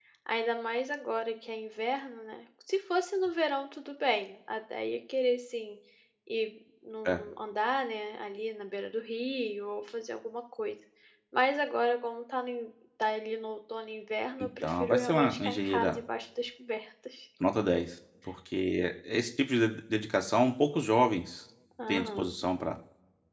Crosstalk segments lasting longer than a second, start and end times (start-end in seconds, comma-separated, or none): 14.6-16.0